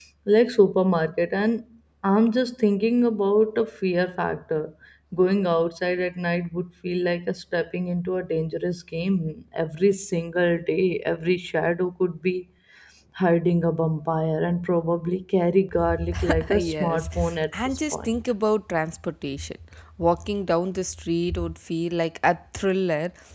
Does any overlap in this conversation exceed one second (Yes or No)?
Yes